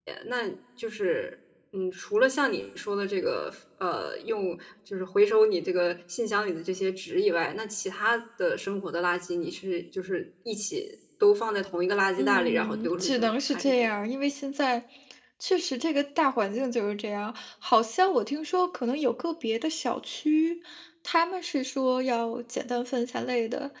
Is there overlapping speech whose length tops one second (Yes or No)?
Yes